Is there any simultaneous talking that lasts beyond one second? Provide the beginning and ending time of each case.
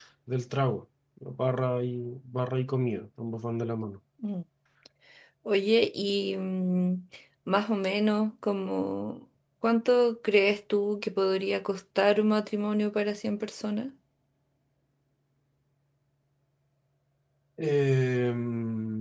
none

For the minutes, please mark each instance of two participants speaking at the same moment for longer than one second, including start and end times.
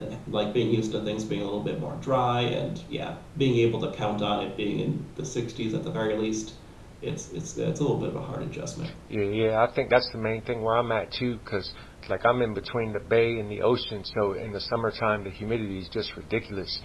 none

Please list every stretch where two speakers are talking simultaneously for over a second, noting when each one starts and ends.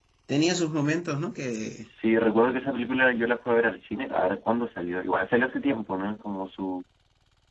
none

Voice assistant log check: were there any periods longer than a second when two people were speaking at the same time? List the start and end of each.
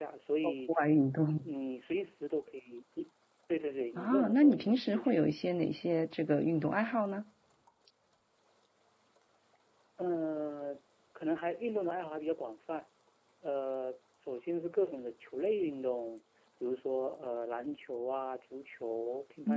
4.0-5.2

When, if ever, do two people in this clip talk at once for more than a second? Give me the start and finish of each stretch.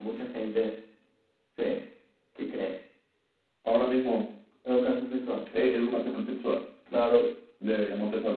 none

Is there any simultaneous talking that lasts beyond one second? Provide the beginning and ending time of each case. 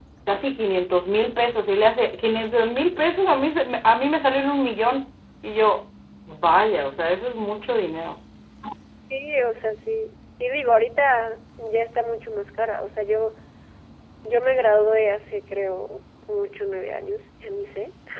none

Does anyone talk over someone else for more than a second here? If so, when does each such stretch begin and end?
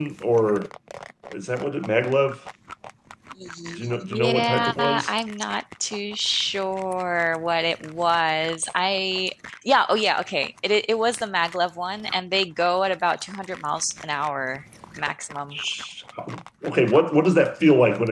3.8-5.1

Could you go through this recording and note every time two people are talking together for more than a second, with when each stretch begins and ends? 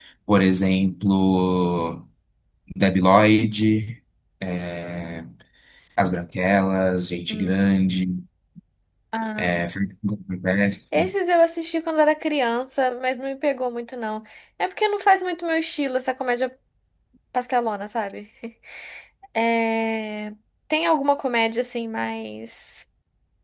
none

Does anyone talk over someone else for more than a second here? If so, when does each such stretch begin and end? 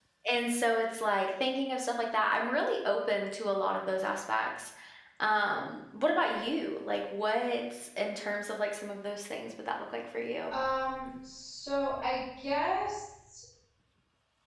none

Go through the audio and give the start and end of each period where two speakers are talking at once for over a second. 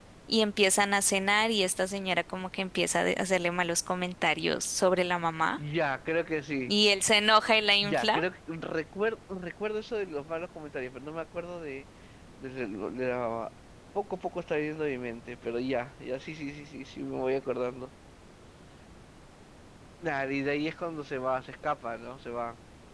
none

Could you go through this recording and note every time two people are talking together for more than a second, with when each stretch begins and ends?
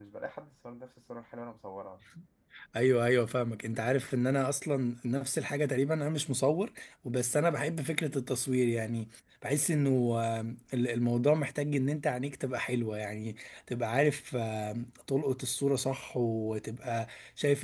none

